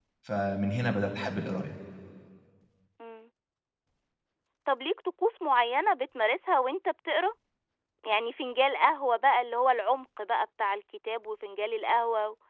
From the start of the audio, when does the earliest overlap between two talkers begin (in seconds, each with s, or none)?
none